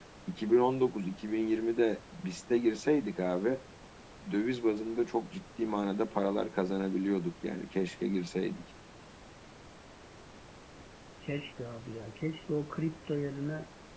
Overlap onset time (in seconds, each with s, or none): none